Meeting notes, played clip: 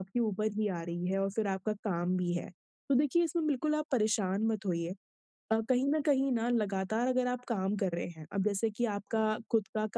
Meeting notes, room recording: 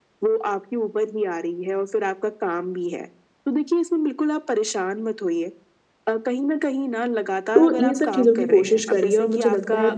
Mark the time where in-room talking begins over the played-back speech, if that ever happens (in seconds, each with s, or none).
7.5 s